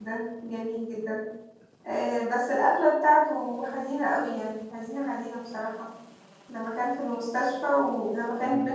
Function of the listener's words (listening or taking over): listening